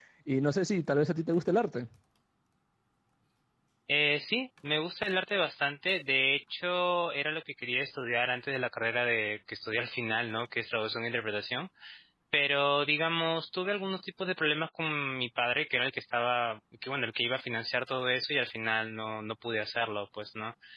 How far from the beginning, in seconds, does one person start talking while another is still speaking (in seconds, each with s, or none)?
none